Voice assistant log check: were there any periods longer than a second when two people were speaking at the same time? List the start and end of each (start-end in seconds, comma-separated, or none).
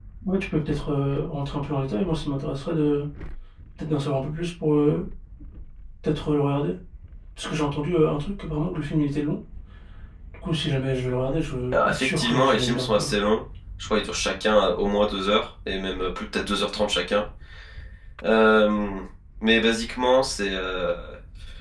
11.7-13.1